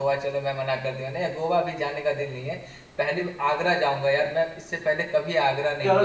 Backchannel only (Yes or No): No